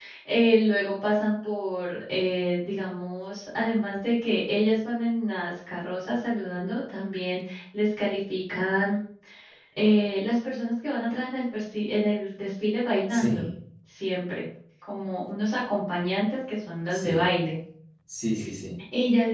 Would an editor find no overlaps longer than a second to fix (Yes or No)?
Yes